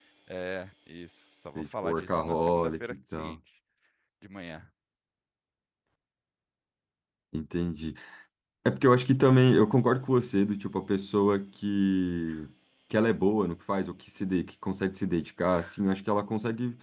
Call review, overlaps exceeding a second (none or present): present